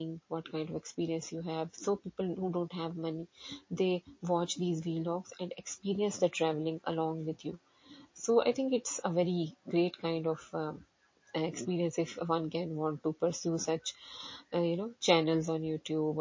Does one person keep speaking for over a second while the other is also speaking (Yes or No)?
No